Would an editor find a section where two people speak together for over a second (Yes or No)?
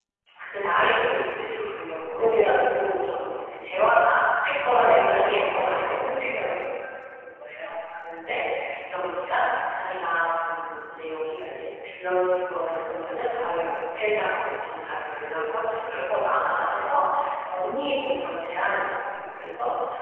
Yes